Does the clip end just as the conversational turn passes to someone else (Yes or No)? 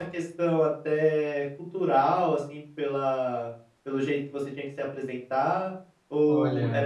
No